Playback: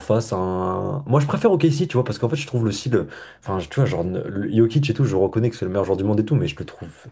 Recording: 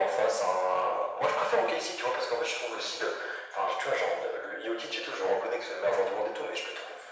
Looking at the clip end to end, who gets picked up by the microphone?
echo only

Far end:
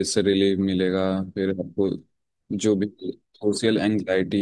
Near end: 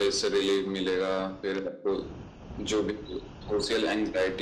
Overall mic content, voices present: echo only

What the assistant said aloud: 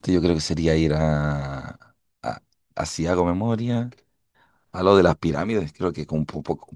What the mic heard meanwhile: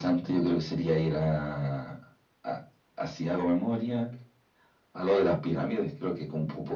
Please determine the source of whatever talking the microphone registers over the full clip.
echo only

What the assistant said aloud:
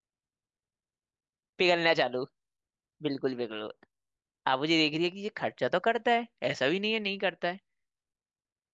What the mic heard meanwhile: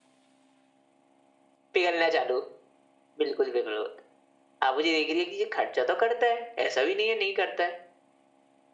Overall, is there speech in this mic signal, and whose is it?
echo only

